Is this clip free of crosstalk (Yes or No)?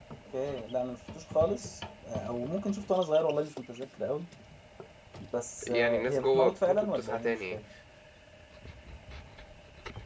No